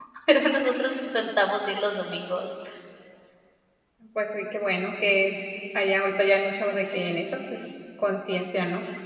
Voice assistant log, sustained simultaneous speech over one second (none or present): none